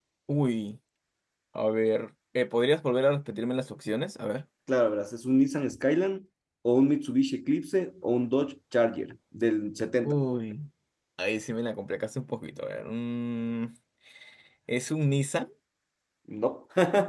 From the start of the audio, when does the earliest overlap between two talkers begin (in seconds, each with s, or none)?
none